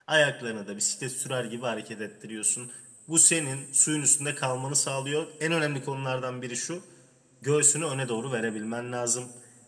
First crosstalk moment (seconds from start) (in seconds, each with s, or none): none